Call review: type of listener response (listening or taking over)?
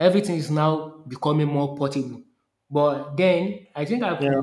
listening